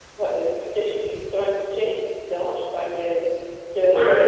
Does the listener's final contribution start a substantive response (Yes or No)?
No